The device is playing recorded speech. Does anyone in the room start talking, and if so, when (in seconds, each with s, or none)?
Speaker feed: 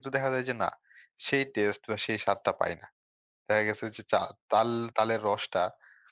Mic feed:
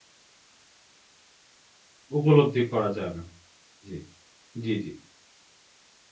2.2 s